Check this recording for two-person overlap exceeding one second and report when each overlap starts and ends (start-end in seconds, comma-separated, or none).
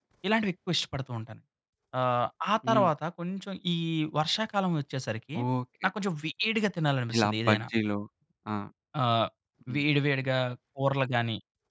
none